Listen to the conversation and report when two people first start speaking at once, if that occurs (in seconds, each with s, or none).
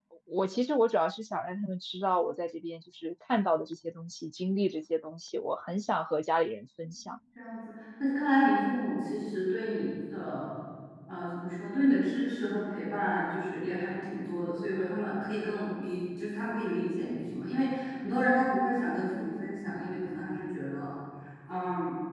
none